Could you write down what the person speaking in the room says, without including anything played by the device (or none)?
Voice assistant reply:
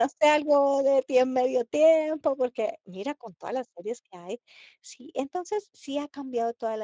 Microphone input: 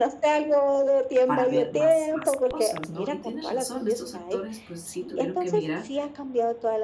para ver más más cosas, ¿no? Y tienes razón, estos actores pues sí tuvieron que migrar